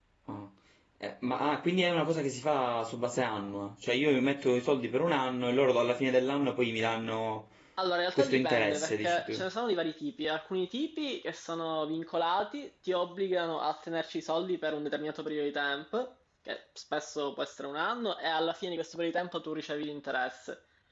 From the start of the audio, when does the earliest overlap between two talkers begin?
8.2 s

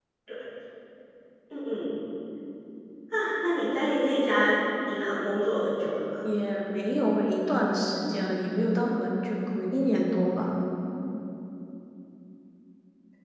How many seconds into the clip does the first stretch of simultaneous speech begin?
none

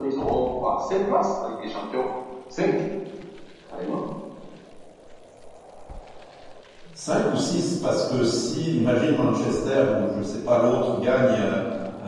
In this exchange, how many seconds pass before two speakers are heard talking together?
none

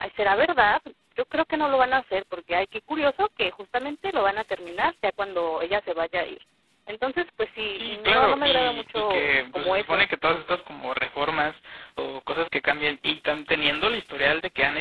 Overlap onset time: 7.7 s

